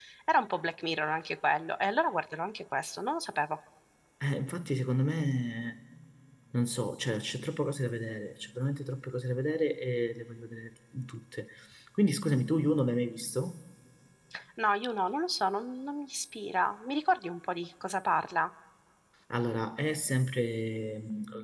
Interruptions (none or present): none